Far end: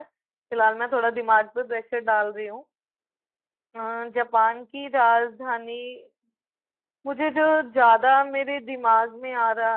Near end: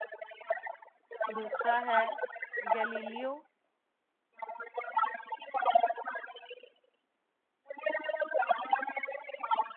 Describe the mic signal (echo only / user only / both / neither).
both